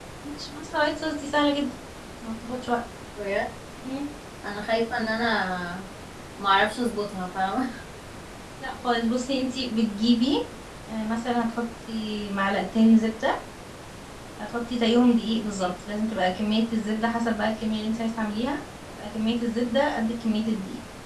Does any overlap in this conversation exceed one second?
No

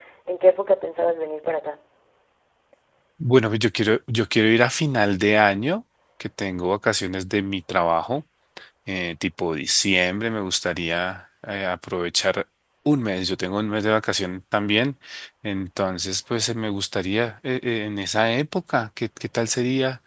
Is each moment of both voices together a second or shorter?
Yes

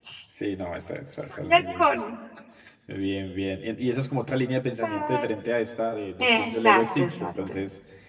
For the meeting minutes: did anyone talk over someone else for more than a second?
Yes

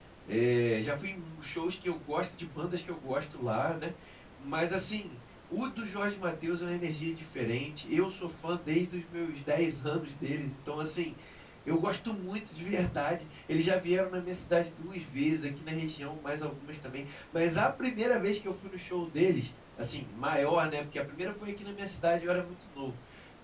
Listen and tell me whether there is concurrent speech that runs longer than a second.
No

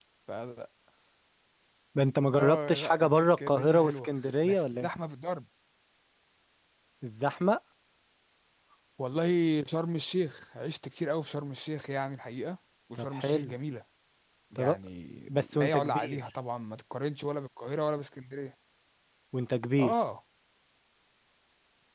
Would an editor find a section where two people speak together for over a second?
Yes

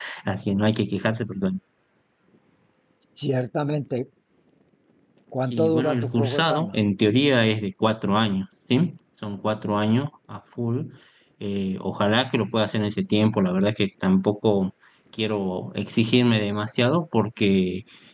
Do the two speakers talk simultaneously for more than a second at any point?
Yes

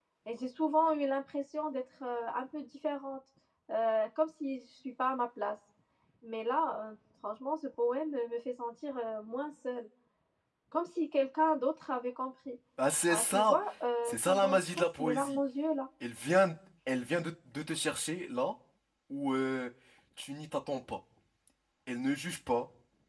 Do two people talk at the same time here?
Yes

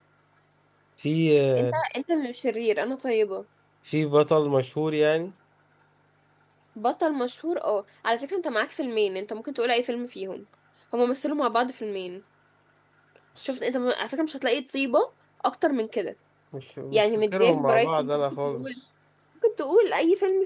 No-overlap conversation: No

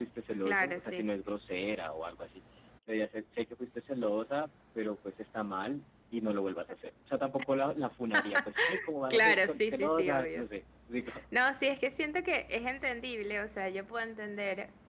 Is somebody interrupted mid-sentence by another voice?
Yes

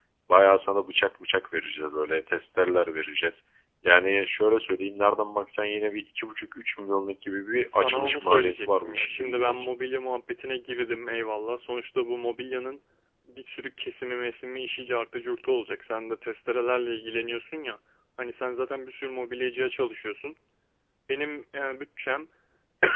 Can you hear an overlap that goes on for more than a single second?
Yes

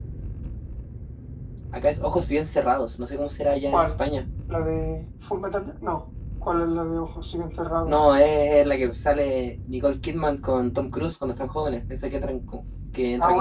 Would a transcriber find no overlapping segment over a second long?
Yes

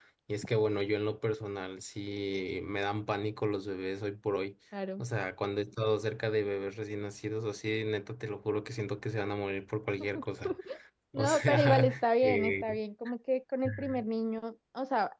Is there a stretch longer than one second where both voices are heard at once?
Yes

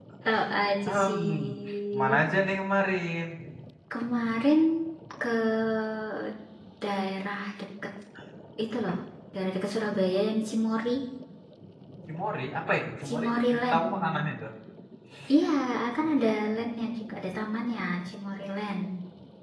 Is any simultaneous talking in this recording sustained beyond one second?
Yes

